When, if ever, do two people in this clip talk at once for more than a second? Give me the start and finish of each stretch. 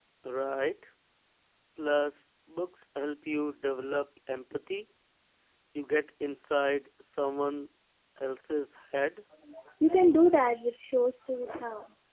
none

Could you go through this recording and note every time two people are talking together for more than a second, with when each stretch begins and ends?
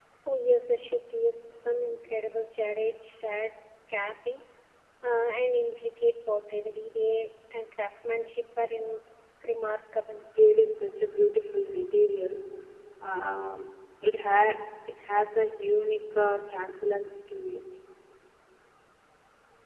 none

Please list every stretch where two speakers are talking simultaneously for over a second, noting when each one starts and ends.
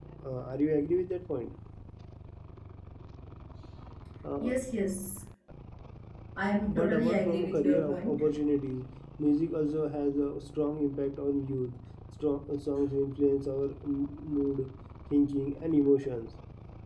6.7-8.2

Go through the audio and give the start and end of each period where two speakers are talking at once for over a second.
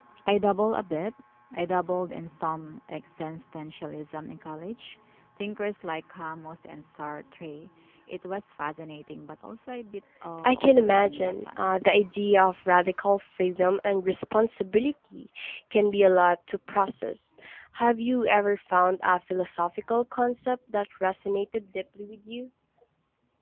10.4-11.7

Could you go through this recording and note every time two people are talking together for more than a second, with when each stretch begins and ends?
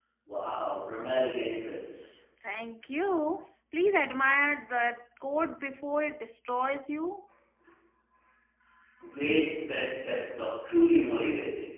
none

